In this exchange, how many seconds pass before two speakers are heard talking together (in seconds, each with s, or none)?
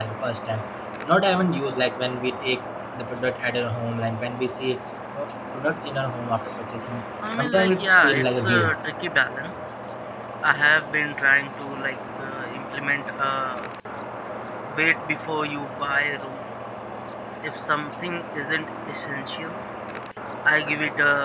7.2 s